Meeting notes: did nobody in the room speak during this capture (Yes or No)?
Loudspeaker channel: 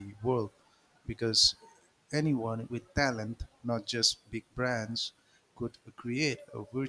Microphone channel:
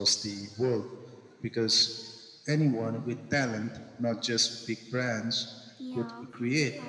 No